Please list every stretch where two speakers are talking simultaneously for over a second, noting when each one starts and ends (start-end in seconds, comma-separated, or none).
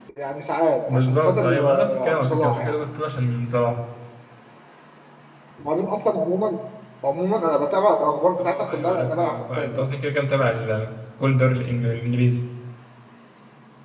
0.9-2.8, 8.4-9.9